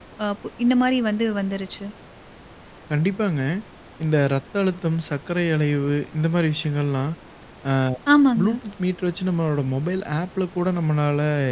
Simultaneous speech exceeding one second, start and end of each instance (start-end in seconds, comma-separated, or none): none